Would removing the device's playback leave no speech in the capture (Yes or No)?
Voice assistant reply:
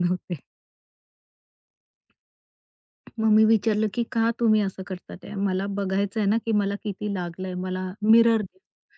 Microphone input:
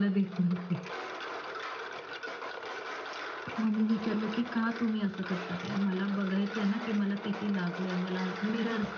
Yes